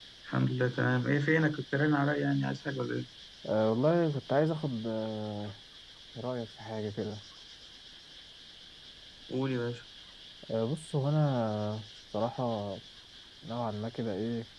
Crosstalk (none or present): none